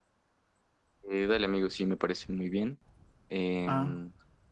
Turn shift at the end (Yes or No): No